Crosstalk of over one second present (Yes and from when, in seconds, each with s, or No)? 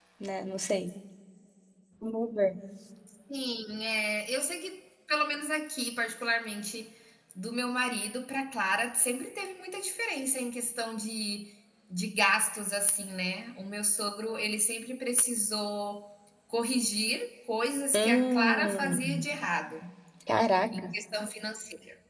Yes, from 17.9 s